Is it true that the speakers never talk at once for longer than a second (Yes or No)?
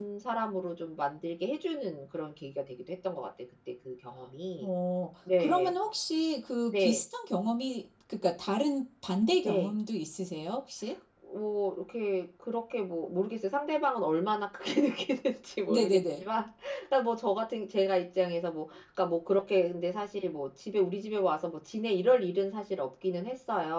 Yes